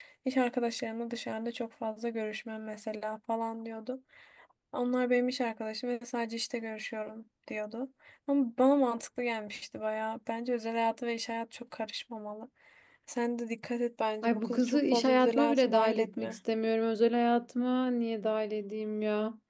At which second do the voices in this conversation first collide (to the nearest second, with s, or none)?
14 s